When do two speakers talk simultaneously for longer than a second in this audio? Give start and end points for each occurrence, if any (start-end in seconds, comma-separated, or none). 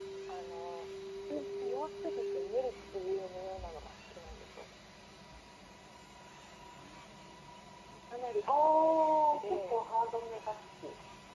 8.4-9.8